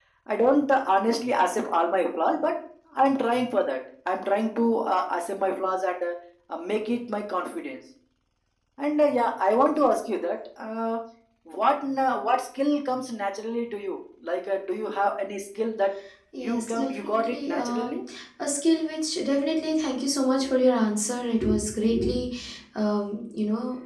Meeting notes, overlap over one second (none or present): present